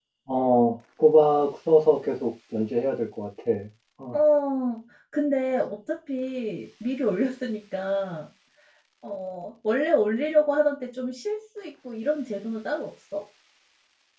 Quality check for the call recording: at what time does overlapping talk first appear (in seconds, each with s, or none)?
none